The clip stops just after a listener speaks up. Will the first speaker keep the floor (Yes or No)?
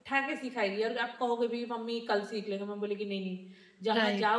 No